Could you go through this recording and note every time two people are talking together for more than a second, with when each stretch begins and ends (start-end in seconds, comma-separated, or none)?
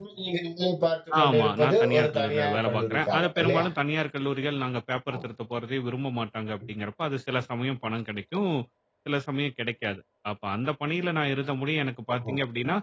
1.2-3.7